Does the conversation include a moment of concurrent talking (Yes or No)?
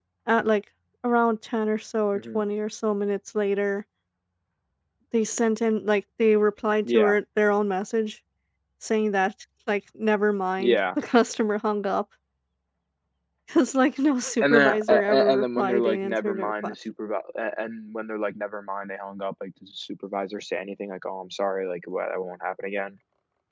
Yes